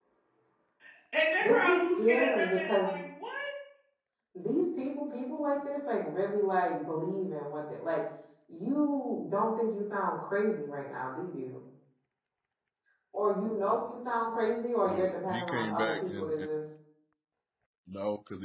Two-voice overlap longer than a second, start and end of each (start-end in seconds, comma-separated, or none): 1.4-3.0, 14.9-16.5